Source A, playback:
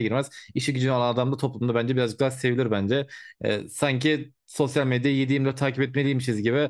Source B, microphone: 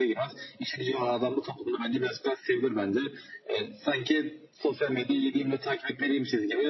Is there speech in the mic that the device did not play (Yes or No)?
No